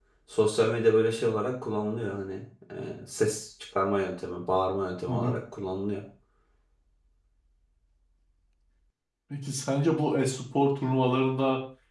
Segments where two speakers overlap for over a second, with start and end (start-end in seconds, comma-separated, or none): none